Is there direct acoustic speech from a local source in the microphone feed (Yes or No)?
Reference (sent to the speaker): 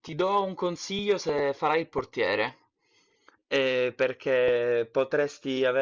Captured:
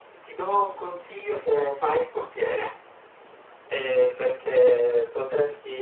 No